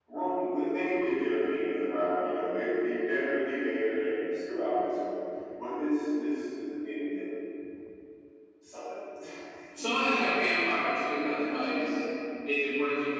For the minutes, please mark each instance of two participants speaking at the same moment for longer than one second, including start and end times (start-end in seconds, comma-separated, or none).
none